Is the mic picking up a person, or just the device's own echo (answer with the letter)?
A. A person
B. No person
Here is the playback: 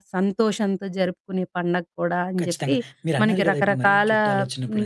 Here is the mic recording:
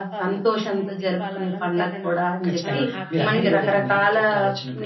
A